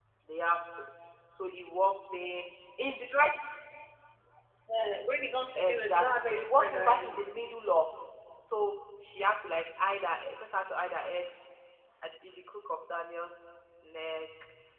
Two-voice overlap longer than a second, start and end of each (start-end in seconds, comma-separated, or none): 5.6-7.2